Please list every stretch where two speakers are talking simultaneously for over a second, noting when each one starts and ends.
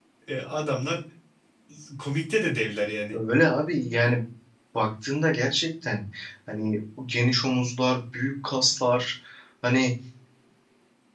none

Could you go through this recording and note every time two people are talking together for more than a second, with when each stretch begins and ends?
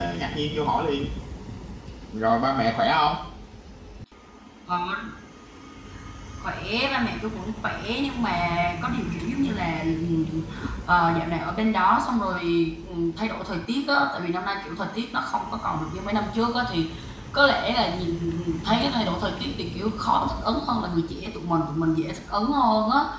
none

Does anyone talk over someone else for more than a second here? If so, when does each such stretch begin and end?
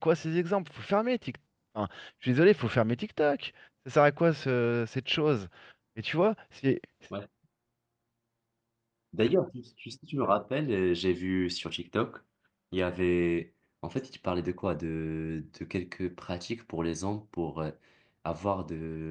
none

